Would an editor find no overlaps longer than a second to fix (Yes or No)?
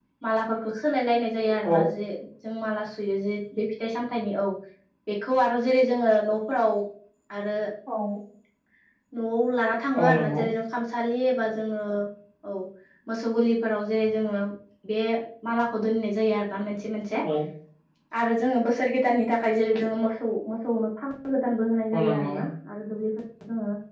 Yes